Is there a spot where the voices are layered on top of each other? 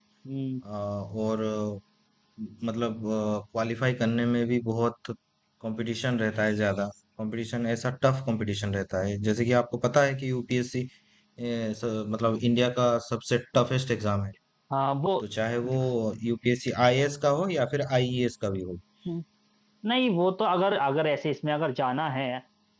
No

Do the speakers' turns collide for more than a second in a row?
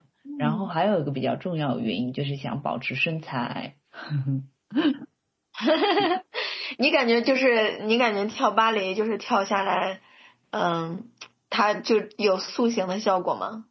No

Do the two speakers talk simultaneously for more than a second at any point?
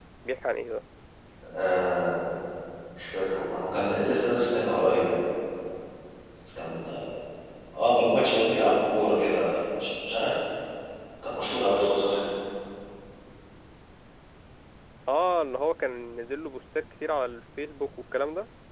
No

